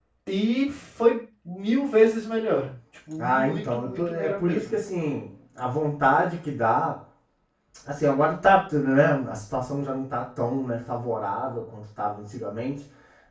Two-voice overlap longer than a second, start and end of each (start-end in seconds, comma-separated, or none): 3.2-4.6